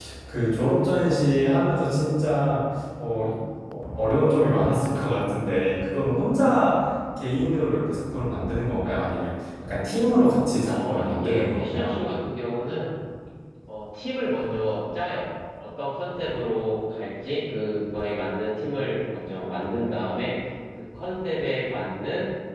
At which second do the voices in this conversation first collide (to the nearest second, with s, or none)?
11 s